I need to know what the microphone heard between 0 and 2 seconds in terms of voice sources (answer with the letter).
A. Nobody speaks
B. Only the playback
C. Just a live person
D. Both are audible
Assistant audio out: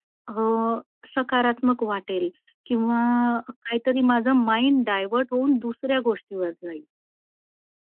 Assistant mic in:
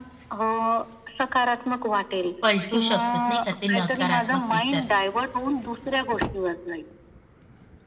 B